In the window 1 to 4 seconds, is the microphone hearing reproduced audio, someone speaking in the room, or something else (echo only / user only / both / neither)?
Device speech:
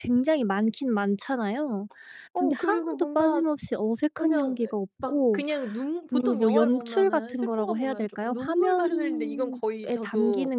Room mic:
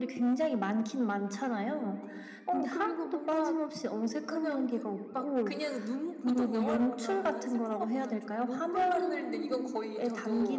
echo only